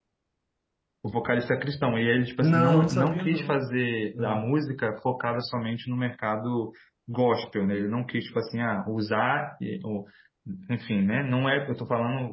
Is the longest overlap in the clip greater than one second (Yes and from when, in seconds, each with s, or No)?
Yes, from 2.4 s